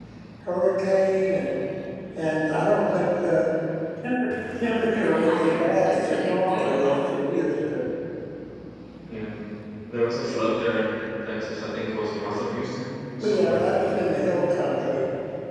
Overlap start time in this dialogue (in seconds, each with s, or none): 4.9 s